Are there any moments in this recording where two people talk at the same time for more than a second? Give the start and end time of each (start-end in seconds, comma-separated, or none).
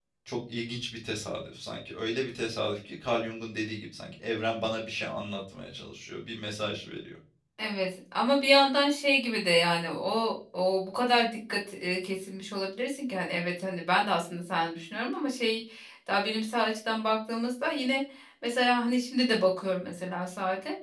none